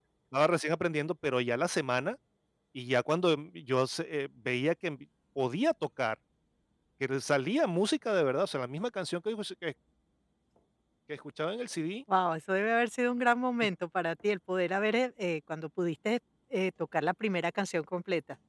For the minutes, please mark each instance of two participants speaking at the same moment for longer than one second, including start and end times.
none

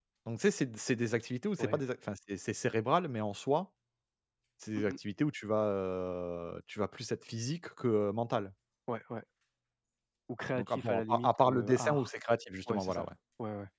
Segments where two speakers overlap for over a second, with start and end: 10.6-12.1

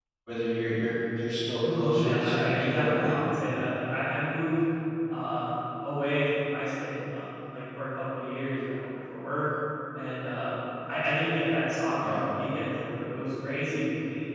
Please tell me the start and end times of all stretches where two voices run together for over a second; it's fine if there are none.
1.7-3.1

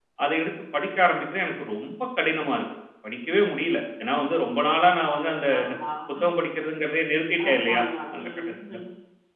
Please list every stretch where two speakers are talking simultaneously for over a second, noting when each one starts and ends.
7.5-8.8

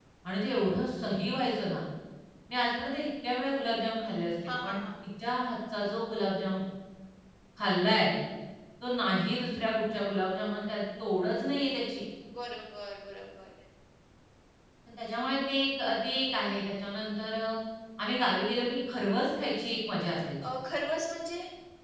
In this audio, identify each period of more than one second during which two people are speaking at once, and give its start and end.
none

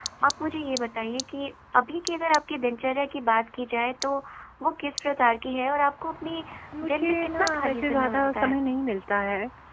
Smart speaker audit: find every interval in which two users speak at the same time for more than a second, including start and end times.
6.9-8.6

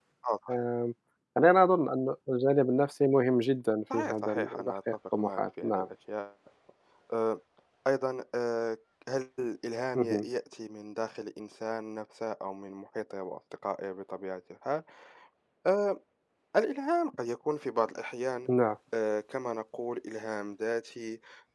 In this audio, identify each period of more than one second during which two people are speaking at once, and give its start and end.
3.9-5.9

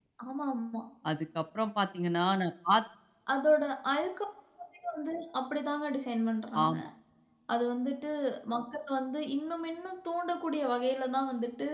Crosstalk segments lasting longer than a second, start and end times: none

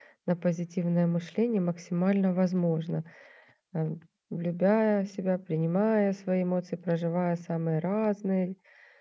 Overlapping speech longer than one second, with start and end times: none

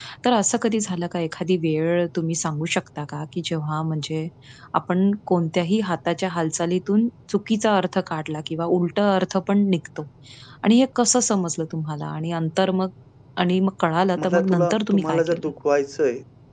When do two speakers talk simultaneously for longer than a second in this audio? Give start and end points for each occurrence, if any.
14.2-15.4

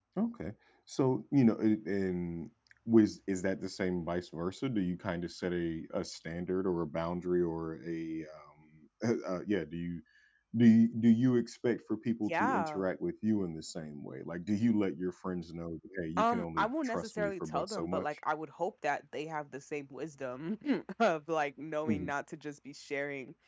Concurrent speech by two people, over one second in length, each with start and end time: 16.2-18.1

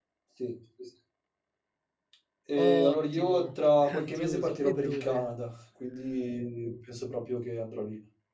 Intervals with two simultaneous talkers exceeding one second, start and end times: 2.6-5.2

